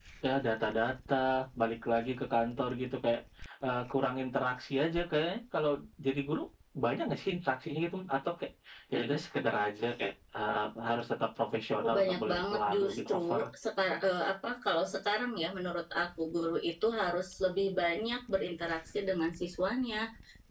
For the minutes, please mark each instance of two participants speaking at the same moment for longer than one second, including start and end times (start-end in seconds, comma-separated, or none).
11.8-13.2